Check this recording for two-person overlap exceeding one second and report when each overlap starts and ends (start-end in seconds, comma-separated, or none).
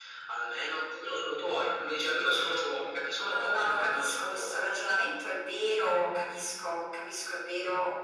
3.3-4.6